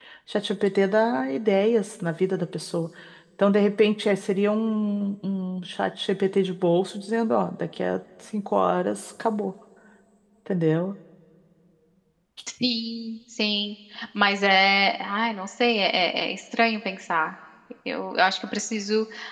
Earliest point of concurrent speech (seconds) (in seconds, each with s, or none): none